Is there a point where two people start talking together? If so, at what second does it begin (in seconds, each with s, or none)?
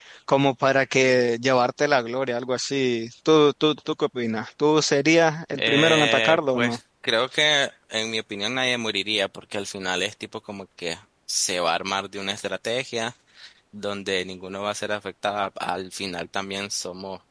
5.6 s